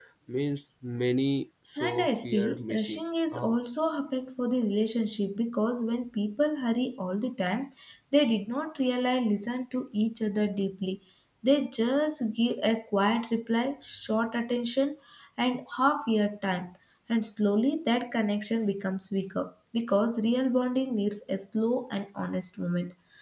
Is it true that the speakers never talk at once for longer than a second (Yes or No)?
No